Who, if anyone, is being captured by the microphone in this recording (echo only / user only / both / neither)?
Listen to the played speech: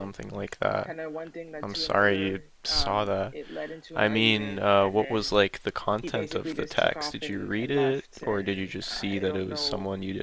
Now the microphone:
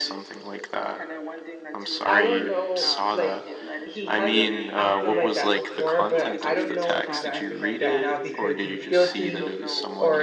both